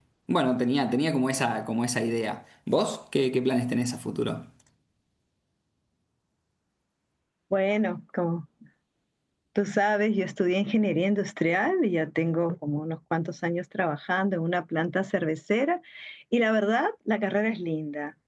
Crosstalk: none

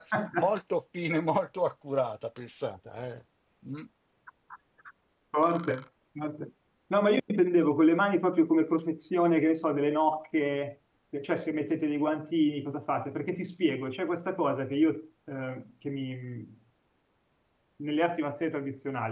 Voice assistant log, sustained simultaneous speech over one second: none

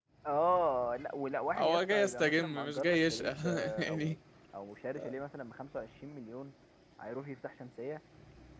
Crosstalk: present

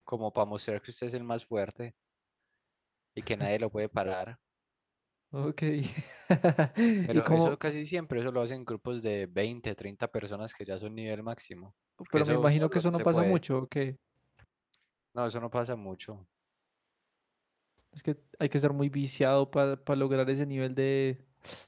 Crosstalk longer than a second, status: present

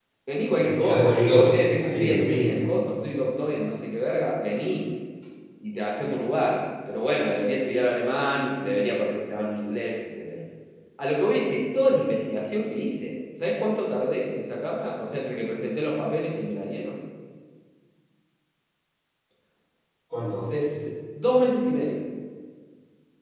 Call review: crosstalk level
present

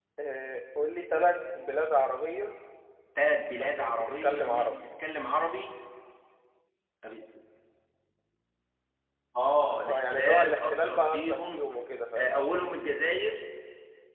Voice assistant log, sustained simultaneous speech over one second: present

